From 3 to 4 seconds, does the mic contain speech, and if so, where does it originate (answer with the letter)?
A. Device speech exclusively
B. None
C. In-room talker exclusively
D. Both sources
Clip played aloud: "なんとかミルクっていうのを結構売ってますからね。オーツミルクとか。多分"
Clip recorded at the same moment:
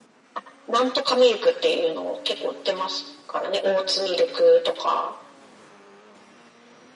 A